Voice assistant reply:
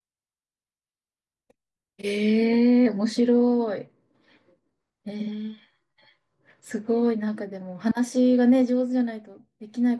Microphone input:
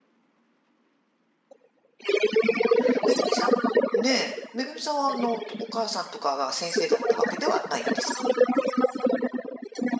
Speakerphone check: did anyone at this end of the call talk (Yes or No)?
Yes